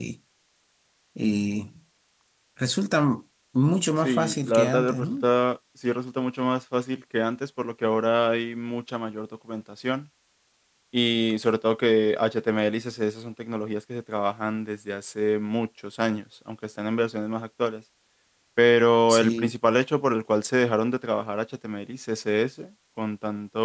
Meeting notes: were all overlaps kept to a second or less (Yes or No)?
No